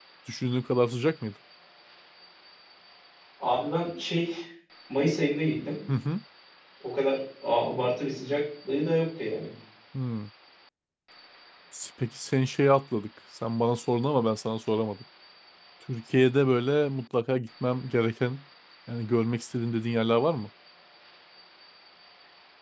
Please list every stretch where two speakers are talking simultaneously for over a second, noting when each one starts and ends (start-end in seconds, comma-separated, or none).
none